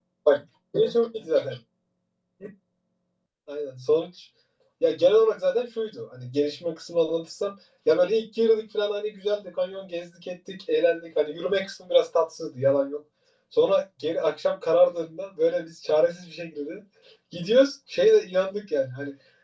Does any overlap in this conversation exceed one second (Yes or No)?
No